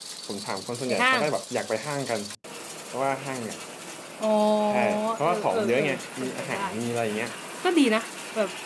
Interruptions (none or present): present